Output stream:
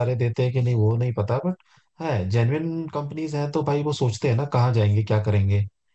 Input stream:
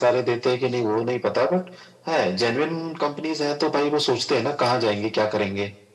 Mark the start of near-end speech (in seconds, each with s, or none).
none